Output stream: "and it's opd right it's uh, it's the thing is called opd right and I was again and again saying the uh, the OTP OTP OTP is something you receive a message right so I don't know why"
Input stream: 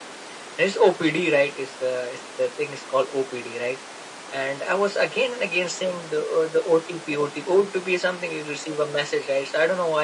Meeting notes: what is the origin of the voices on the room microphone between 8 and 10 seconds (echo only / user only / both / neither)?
echo only